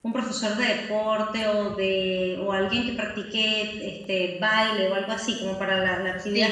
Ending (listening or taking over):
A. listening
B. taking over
B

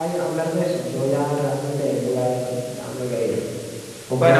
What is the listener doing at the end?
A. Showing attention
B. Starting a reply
B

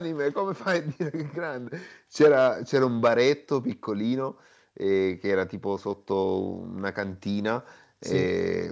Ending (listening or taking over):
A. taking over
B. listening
B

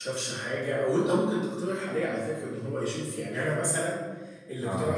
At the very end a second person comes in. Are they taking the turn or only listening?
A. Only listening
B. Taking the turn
A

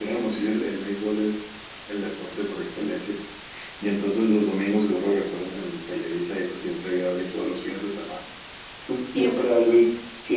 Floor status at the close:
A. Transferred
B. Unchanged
B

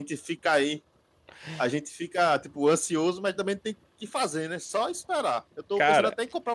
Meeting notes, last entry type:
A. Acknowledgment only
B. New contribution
A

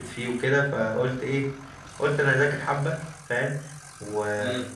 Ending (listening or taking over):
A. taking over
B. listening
B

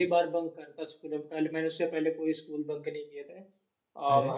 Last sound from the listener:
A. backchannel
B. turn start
A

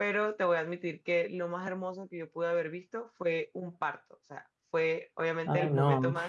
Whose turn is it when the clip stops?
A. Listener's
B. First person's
B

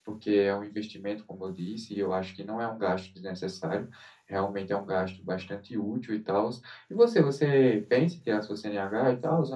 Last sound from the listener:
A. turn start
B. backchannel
A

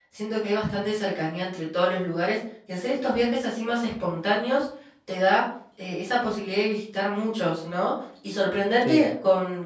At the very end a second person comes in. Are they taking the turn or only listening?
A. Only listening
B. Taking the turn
A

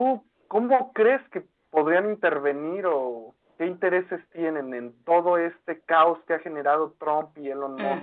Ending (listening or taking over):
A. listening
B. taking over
B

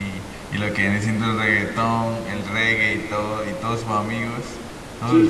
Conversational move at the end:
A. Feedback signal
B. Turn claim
B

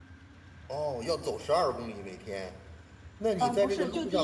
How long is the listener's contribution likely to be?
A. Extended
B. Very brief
A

